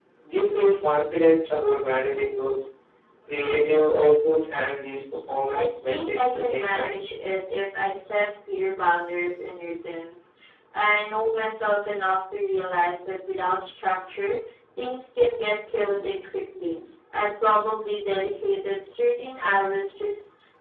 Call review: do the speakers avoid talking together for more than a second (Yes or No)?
No